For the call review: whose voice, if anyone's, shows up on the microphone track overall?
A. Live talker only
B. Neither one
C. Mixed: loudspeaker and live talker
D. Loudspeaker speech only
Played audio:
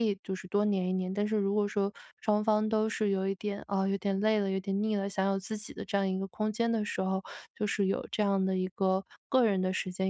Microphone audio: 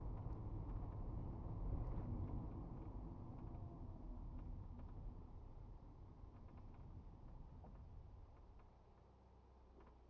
B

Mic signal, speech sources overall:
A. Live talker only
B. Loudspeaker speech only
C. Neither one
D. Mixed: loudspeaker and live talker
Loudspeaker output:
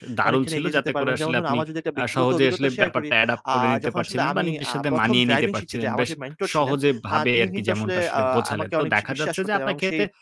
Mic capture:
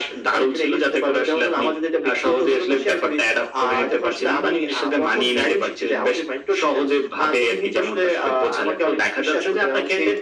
B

